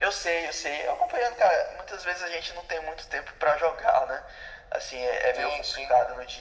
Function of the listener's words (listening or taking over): listening